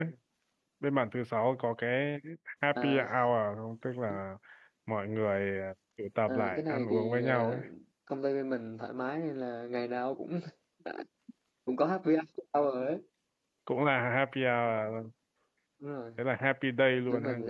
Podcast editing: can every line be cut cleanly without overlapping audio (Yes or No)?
No